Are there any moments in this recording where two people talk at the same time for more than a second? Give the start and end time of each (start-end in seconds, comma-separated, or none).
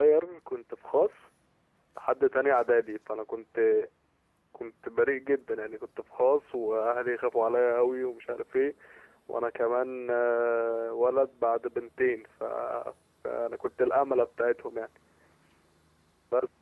none